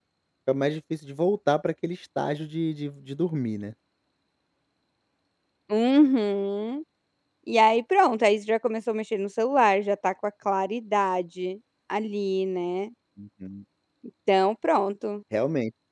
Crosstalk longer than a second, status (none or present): none